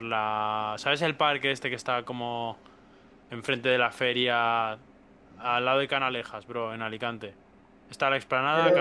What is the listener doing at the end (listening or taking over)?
listening